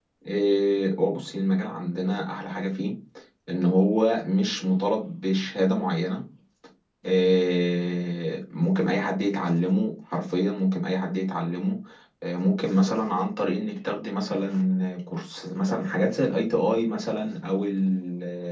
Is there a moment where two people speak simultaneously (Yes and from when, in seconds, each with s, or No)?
No